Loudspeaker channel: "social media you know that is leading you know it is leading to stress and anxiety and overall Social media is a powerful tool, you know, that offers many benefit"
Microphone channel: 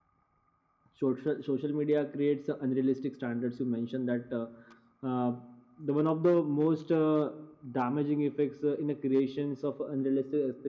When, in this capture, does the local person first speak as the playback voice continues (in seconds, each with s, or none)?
0.9 s